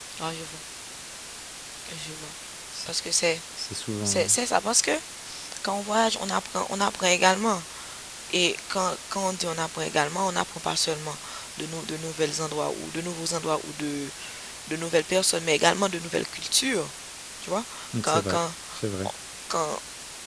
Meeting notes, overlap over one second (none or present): none